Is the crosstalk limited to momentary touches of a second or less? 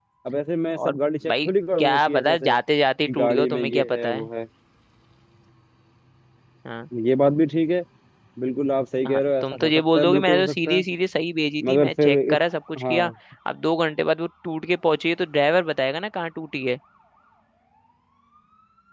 No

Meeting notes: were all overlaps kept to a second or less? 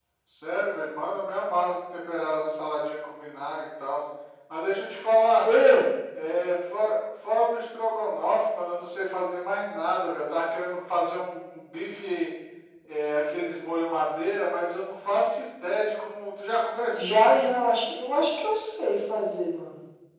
Yes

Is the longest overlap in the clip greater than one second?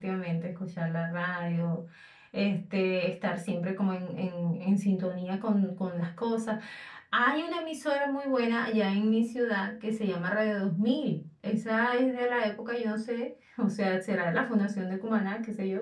No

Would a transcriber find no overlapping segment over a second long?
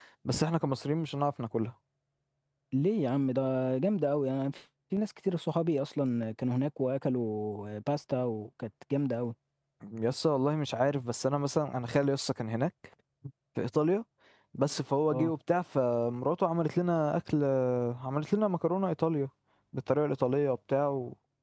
Yes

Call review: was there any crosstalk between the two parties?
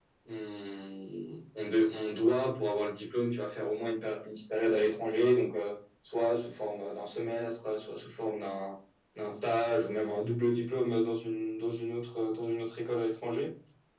No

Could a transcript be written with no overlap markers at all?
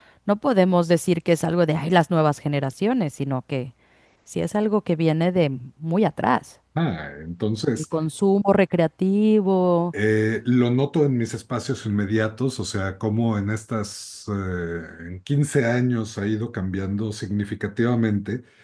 Yes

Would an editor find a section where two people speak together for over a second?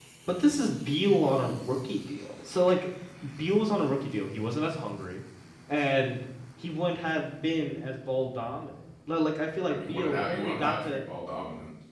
Yes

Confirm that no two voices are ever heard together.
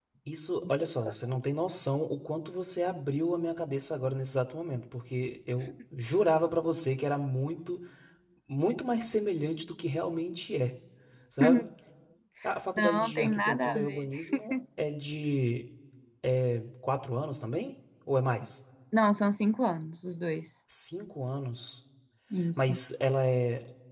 No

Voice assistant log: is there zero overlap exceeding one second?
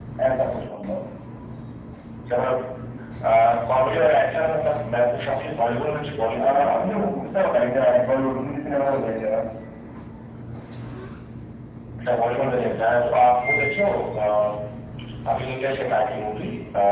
Yes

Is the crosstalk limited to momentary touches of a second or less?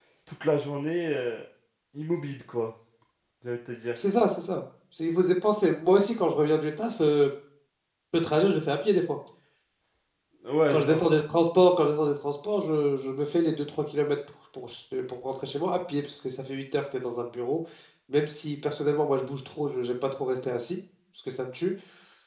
Yes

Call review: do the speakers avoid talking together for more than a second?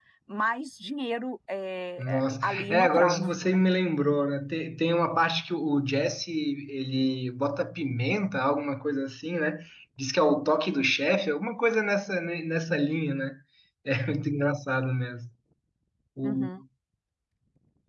No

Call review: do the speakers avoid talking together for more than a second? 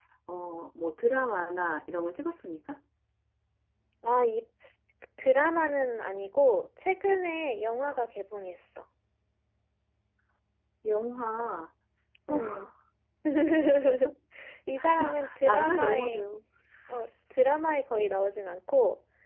No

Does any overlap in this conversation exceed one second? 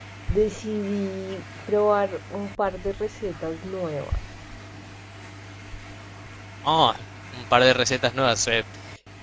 No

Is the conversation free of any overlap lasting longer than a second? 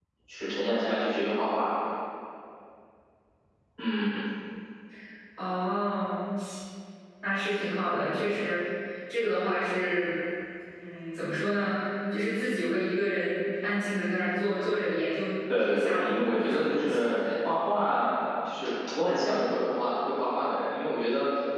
No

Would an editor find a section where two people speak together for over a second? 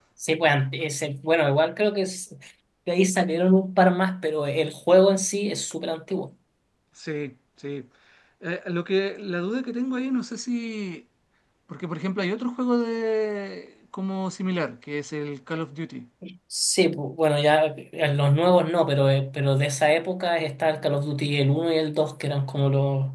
No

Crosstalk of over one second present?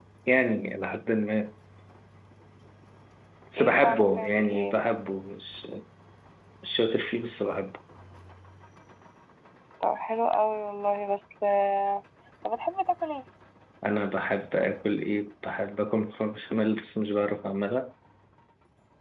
Yes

